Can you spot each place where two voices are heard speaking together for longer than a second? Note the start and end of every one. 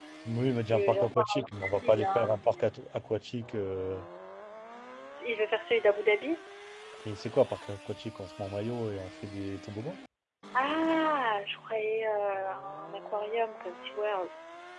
0.7-2.6

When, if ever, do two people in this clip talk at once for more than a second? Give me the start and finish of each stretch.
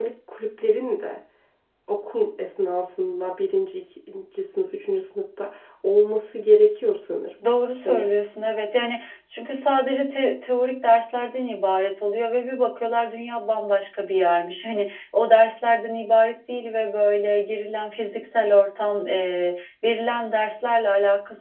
none

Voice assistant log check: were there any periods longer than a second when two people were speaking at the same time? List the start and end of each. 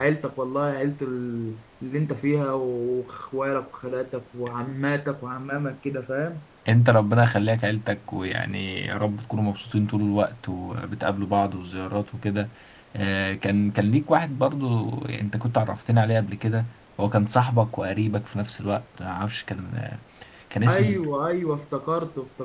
none

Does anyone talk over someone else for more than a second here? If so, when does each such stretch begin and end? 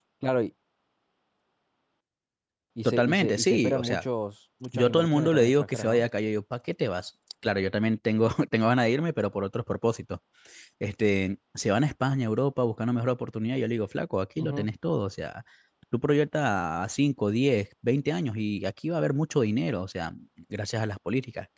2.8-4.0, 4.7-6.0

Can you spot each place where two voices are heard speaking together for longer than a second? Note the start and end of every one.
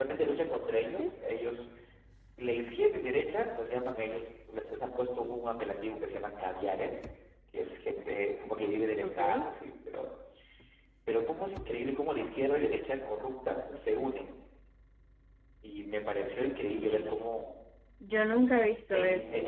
none

